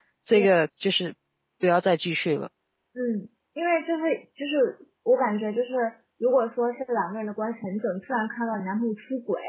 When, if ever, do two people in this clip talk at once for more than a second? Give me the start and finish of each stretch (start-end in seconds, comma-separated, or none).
none